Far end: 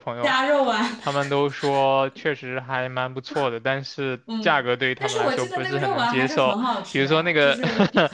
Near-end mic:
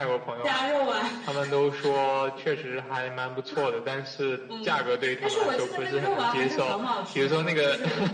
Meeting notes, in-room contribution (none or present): none